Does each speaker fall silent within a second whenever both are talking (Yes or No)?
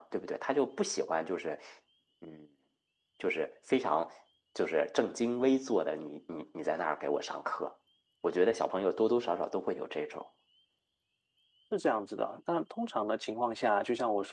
Yes